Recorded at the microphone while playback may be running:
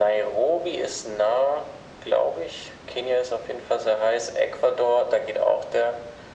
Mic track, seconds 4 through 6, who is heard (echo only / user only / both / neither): echo only